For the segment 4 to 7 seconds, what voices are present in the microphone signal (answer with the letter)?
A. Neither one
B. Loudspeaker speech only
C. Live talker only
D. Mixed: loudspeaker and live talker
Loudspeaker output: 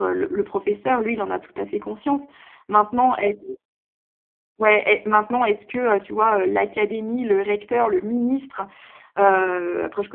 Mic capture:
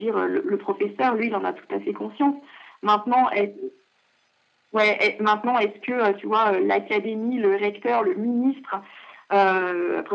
B